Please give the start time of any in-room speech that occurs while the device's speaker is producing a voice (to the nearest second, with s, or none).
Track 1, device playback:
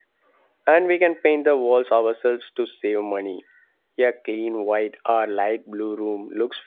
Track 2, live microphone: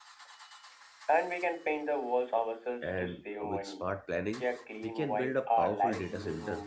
3 s